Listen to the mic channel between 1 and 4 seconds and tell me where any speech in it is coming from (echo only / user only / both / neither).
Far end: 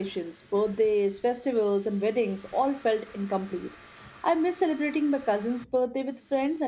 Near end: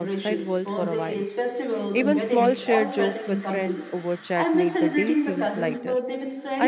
both